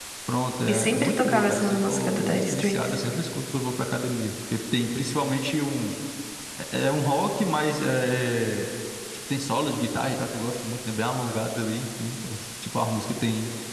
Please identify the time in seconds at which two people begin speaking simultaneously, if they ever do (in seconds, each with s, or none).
0.7 s